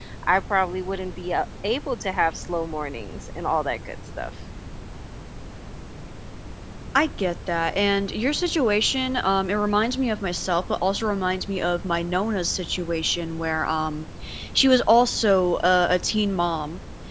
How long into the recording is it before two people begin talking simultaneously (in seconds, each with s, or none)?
none